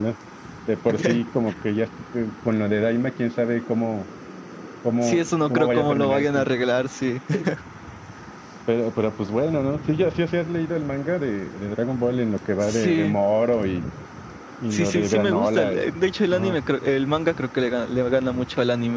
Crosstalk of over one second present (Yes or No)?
Yes